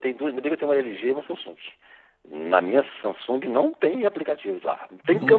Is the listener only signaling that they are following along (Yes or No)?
Yes